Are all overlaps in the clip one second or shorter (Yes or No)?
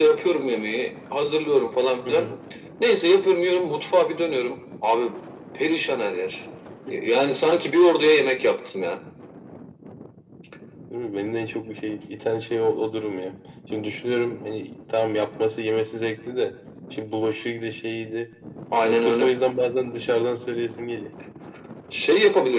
Yes